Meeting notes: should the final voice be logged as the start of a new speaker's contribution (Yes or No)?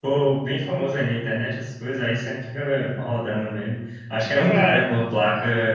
No